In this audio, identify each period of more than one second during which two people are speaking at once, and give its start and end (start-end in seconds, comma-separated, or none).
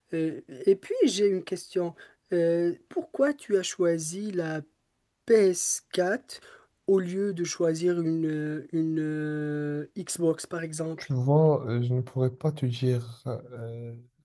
none